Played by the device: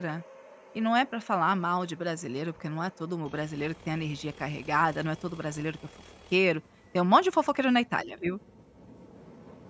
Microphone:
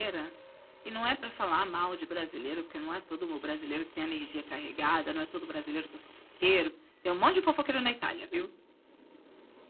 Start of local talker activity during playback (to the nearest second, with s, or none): none